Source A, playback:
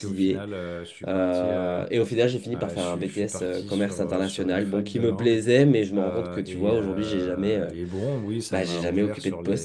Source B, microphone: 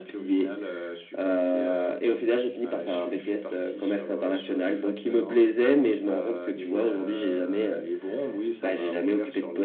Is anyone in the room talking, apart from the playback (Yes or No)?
No